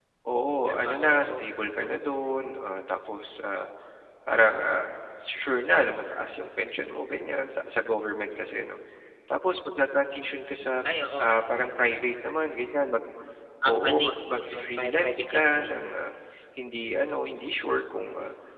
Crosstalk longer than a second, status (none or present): present